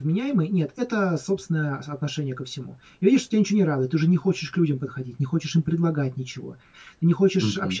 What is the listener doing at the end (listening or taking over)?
listening